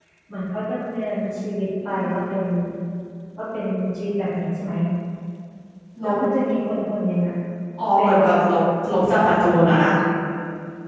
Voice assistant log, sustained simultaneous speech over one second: none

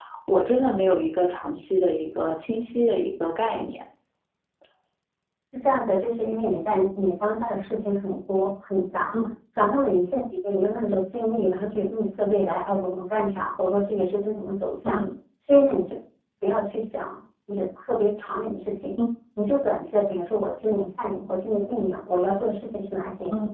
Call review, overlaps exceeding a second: none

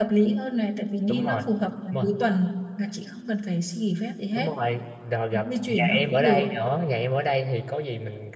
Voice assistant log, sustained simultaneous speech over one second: present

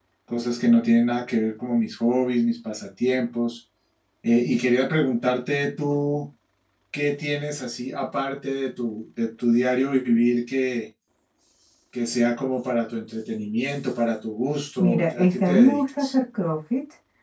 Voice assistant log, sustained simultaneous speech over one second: present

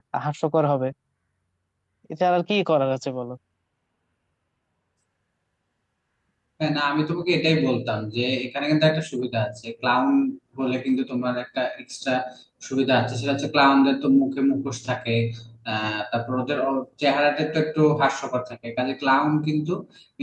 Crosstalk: none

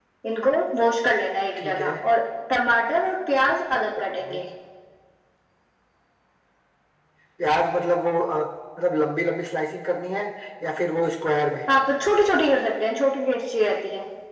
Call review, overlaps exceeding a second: none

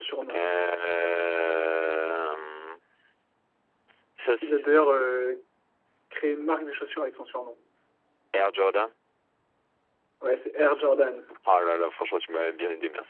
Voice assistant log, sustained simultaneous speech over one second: none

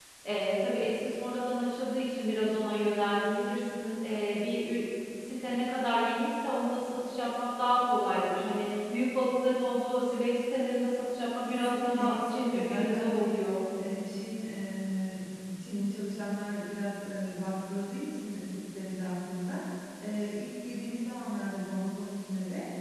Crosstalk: present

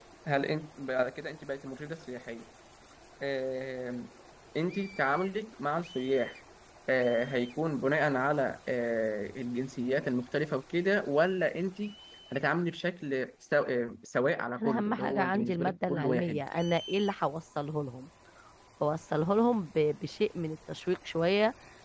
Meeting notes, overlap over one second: present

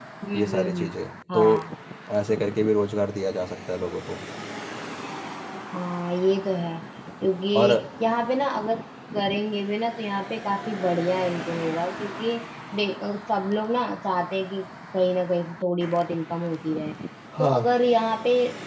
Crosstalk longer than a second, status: none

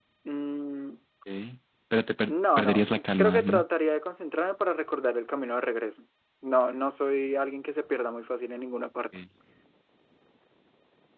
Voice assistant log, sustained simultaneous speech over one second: present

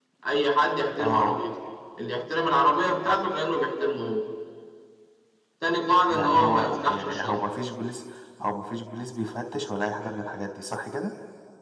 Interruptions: present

